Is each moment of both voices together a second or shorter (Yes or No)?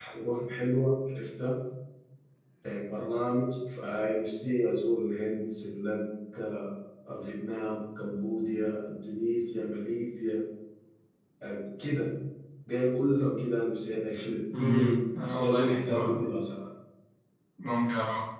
No